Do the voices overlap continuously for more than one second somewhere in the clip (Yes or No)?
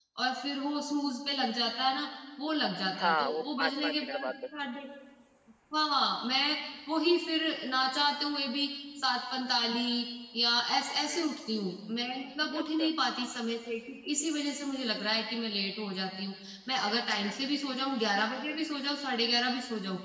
Yes